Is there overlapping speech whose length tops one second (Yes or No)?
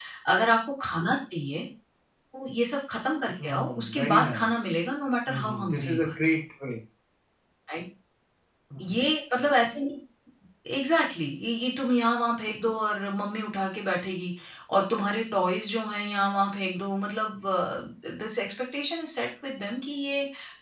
Yes